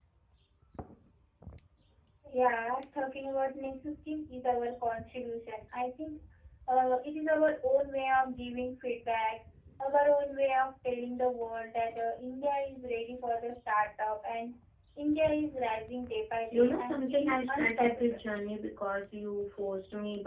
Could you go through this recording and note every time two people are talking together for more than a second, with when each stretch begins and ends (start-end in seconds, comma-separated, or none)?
16.5-18.2